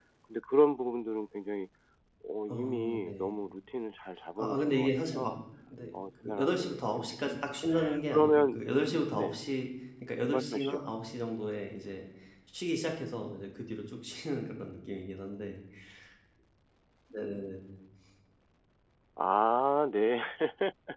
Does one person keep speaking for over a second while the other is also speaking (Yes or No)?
Yes